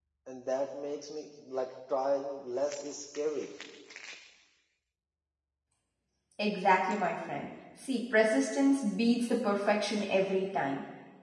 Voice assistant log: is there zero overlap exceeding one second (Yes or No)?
Yes